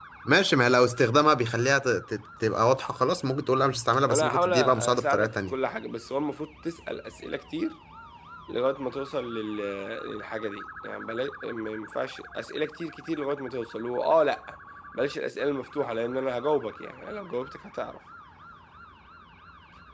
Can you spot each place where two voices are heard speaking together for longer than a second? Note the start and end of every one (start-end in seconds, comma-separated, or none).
4.1-5.5